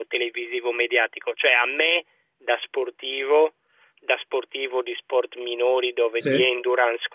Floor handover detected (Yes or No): No